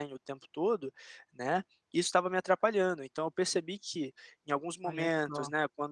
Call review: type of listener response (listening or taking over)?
listening